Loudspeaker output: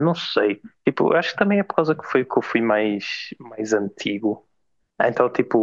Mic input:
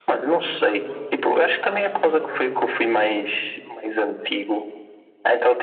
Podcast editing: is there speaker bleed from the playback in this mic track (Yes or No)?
Yes